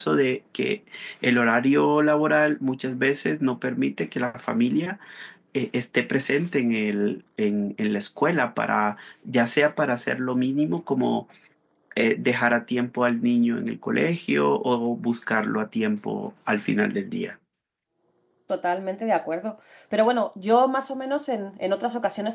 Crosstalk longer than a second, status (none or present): none